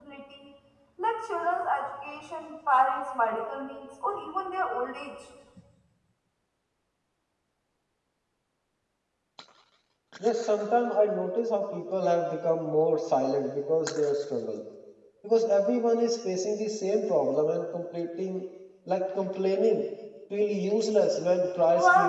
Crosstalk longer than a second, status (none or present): none